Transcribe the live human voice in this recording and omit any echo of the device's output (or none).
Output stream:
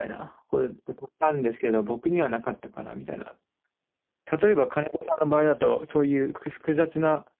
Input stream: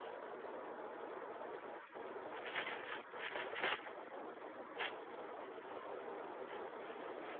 none